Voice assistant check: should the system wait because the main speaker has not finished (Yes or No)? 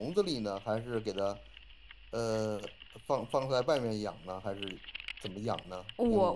No